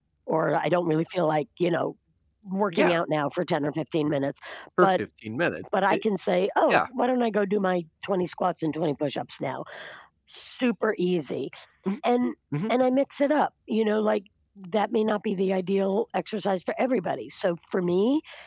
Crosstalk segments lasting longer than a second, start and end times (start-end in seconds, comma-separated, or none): none